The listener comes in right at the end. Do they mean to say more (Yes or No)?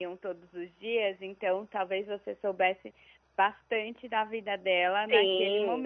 Yes